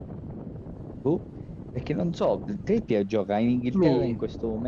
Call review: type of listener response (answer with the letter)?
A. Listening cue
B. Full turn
A